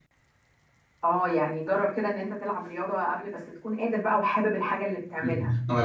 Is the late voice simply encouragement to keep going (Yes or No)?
No